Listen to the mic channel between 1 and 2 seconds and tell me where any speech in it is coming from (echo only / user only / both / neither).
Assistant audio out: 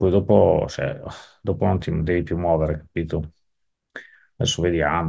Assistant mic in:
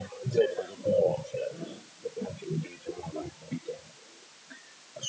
both